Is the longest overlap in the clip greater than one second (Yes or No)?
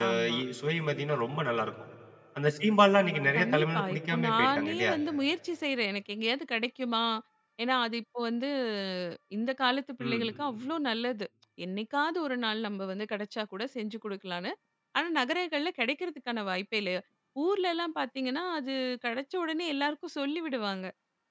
Yes